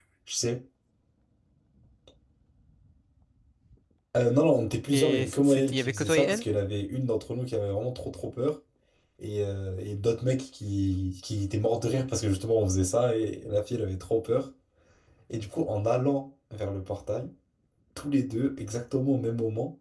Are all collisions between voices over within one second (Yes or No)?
No